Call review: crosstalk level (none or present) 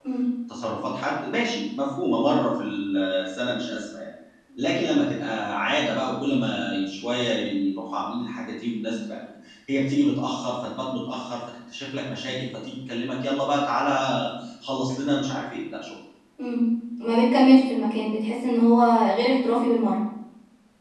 none